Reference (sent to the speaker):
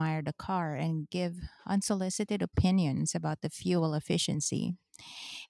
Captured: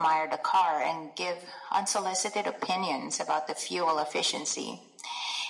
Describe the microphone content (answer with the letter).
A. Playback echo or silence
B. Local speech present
A